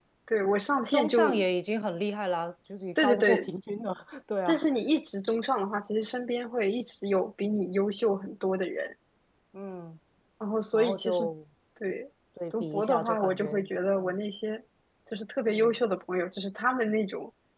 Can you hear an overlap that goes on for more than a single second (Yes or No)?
Yes